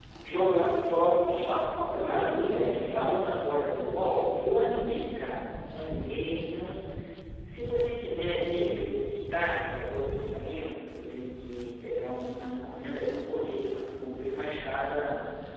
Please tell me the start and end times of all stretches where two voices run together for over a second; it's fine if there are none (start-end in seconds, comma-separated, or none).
1.9-3.2